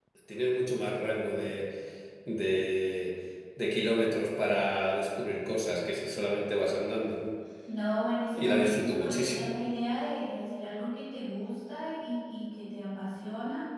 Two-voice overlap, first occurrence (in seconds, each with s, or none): 8.3 s